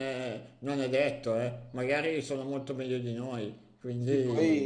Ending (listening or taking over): taking over